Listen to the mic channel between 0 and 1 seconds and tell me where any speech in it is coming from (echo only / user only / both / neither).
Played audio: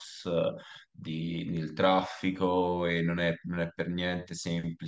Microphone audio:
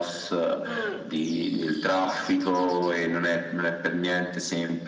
both